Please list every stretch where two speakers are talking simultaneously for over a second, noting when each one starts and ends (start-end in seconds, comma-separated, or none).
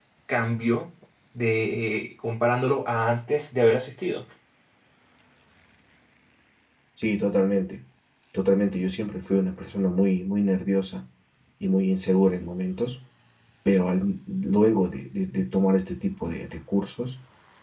none